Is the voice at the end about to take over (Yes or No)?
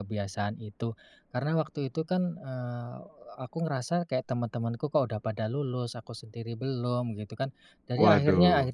No